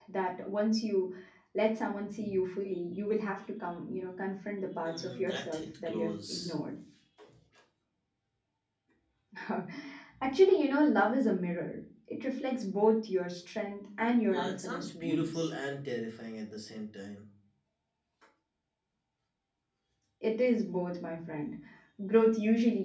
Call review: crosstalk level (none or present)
present